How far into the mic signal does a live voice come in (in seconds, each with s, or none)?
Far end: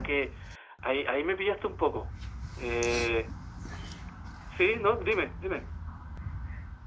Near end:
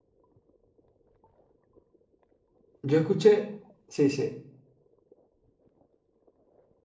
2.8 s